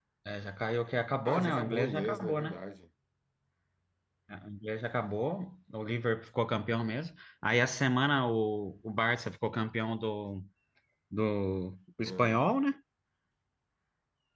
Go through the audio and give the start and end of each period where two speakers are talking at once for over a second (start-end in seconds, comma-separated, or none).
1.2-2.6